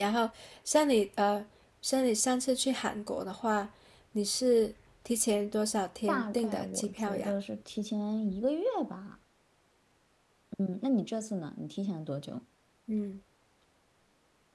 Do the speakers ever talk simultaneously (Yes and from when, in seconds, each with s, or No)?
Yes, from 6.1 s